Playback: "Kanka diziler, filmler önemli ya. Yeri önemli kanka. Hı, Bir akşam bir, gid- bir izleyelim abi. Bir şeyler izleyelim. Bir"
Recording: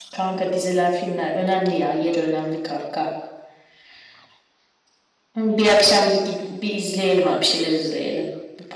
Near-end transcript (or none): none